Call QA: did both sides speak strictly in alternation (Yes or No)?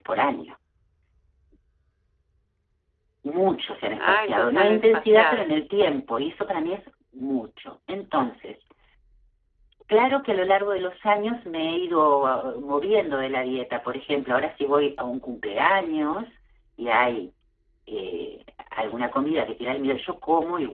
No